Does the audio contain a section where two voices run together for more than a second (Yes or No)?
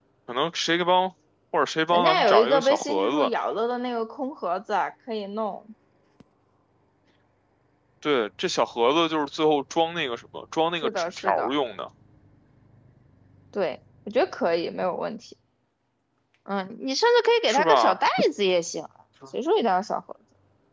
Yes